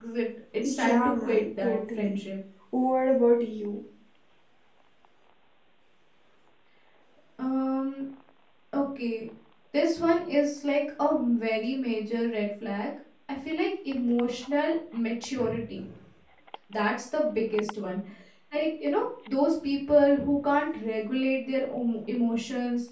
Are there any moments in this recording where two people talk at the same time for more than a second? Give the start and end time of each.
0.6-2.2

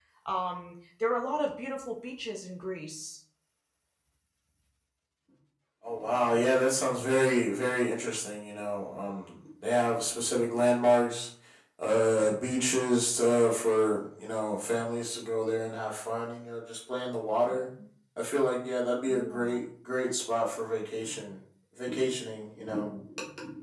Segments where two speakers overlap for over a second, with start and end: none

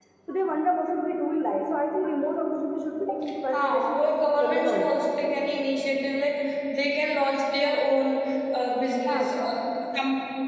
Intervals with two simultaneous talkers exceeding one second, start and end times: 3.5-5.0

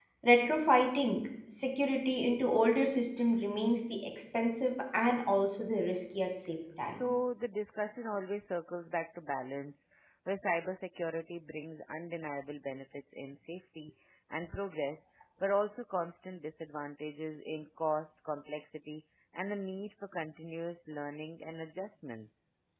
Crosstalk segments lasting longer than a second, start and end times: none

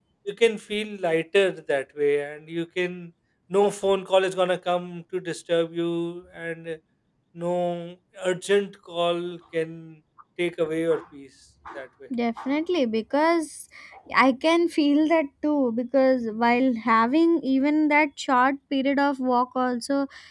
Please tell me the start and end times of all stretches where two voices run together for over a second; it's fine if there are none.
none

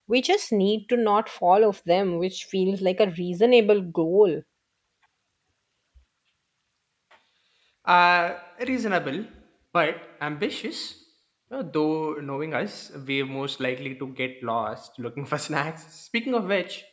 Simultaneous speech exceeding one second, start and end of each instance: none

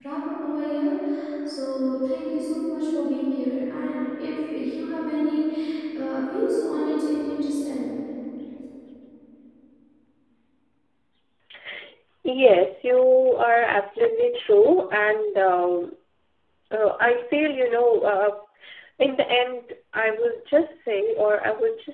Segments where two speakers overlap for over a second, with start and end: none

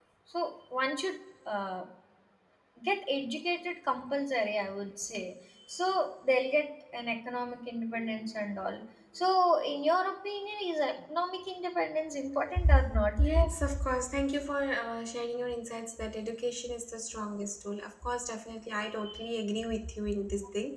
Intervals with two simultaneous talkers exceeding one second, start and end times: none

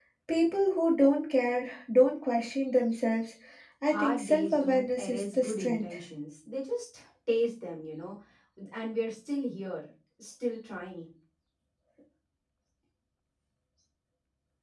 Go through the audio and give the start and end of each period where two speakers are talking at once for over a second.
3.9-5.9

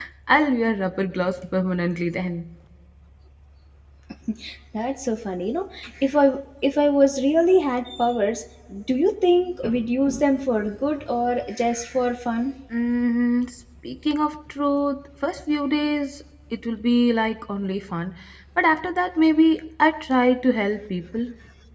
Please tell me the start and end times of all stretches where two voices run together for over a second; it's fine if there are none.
none

